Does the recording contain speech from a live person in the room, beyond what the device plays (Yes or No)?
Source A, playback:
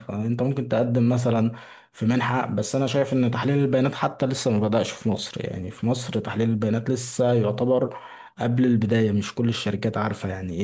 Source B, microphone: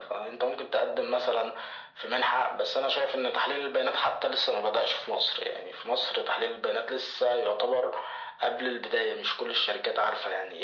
No